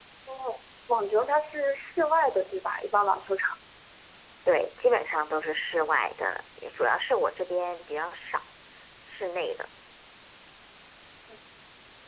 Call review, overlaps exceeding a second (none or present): none